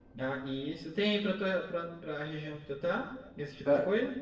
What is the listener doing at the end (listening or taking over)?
taking over